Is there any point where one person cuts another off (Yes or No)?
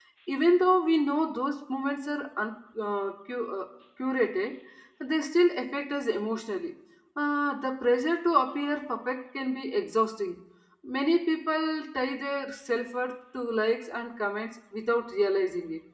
No